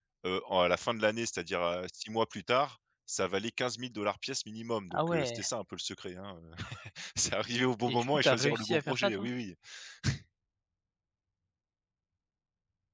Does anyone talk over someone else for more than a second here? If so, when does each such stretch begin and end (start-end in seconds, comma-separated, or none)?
7.8-9.3